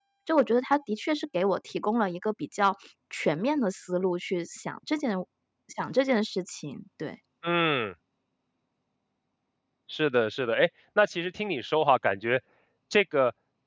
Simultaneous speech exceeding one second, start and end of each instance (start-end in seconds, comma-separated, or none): none